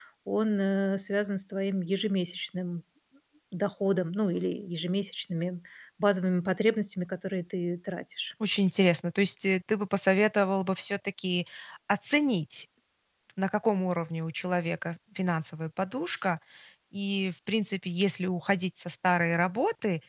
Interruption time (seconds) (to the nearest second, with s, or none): none